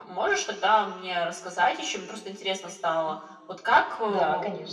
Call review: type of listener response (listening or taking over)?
listening